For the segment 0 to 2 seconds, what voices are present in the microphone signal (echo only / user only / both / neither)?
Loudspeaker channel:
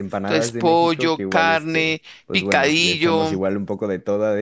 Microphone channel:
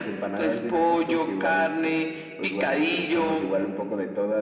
echo only